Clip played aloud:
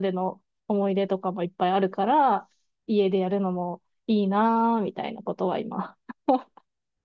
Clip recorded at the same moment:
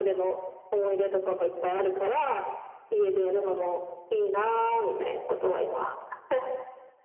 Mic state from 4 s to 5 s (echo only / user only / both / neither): echo only